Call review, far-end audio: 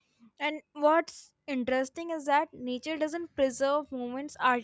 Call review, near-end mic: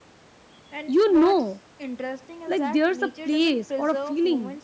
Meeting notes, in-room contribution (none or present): present